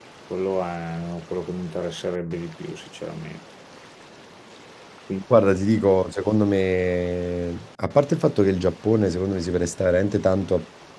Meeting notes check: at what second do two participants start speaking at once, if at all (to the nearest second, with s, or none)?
none